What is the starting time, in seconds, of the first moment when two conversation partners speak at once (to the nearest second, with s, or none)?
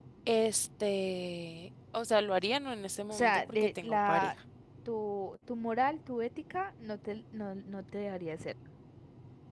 3 s